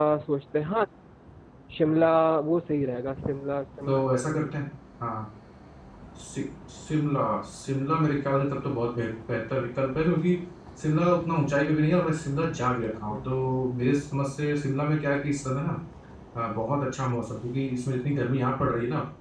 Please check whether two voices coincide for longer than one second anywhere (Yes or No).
No